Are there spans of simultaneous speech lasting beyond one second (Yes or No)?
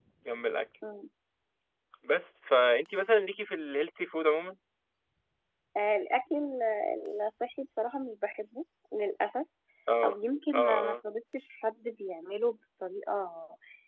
No